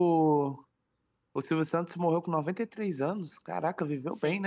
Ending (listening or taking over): taking over